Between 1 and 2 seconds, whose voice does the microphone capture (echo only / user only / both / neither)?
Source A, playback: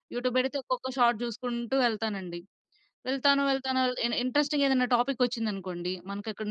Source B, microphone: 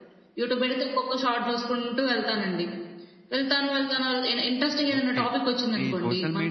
echo only